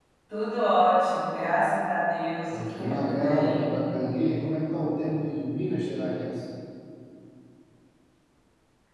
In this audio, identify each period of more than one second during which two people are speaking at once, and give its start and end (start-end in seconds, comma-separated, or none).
2.5-3.7